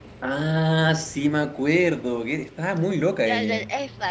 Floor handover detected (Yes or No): Yes